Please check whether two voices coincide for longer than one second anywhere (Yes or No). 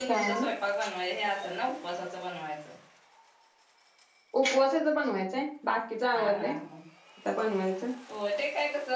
No